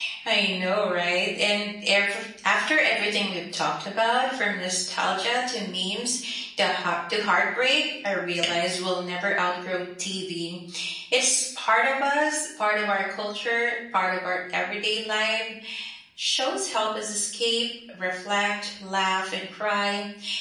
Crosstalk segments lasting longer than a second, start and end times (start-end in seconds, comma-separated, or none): none